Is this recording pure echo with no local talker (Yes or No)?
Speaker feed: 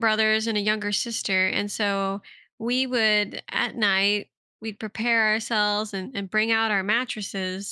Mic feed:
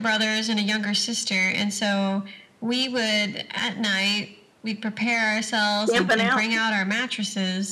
No